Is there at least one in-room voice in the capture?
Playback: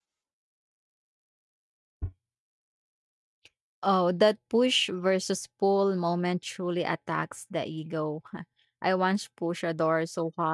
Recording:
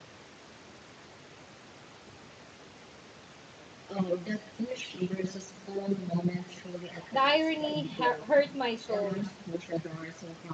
Yes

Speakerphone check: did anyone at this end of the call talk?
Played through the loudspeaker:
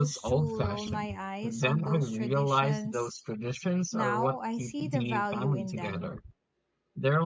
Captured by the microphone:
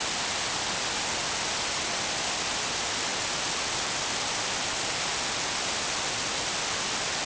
No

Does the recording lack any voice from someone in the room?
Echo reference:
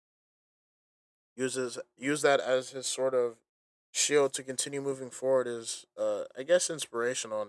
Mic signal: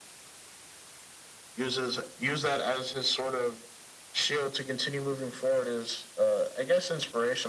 Yes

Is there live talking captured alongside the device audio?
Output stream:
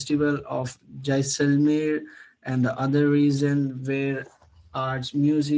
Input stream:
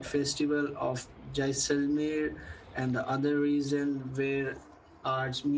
No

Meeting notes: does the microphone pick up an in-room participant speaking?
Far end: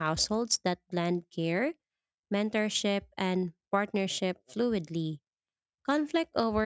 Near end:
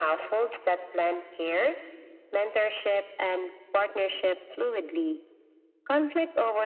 No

